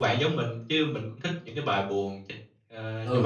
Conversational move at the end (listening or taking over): taking over